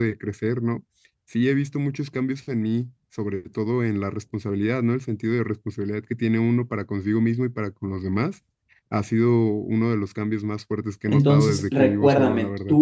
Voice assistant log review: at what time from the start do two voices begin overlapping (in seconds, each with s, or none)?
11.1 s